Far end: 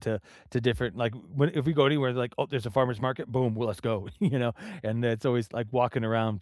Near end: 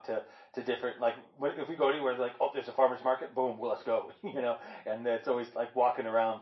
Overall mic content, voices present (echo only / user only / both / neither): echo only